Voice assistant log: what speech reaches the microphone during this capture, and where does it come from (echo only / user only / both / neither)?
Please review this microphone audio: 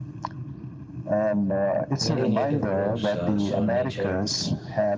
both